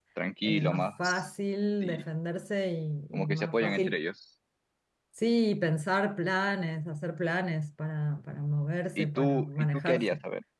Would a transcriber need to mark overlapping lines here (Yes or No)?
Yes